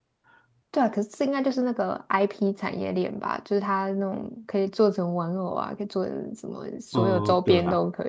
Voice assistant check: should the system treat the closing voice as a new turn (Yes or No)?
Yes